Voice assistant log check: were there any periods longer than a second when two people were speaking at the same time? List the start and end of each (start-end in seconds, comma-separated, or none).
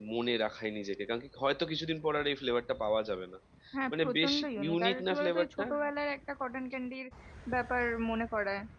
3.9-5.6